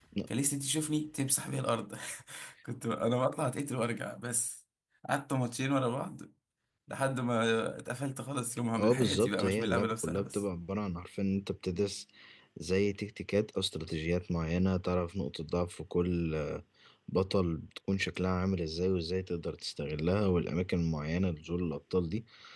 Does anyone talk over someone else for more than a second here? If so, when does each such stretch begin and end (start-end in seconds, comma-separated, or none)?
8.8-10.4